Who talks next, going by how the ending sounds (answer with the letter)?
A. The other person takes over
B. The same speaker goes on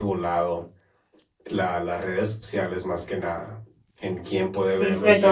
A